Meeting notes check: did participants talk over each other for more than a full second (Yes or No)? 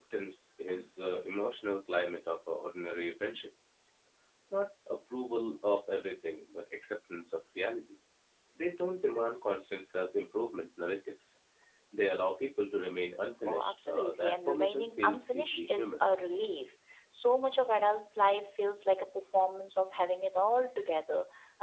Yes